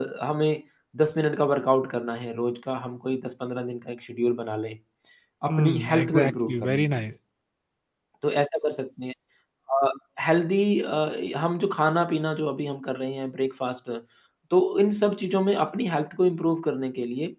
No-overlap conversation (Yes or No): No